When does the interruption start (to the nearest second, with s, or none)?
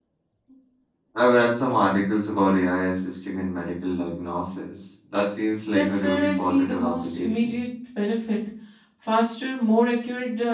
6 s